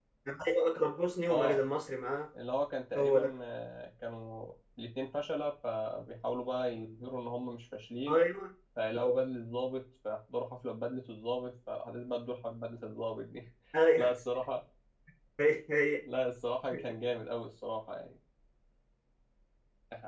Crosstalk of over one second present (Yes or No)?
No